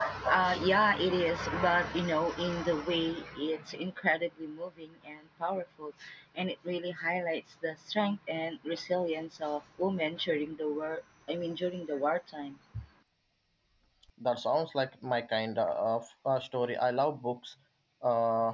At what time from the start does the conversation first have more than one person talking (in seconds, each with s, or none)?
none